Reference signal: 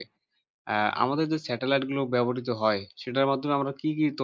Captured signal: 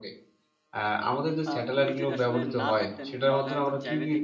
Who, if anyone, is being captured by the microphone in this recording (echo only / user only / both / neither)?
both